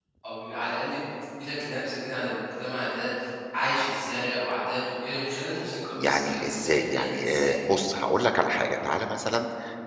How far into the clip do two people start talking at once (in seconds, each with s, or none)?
6.0 s